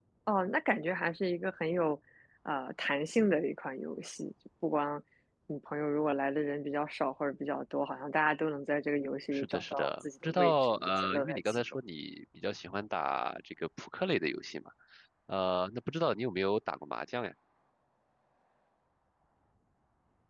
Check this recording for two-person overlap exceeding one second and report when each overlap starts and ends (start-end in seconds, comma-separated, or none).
9.3-11.8